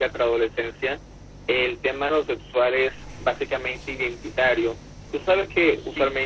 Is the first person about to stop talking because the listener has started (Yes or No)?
No